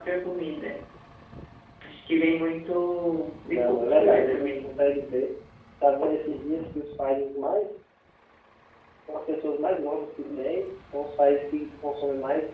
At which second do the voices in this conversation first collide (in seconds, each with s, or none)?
3.5 s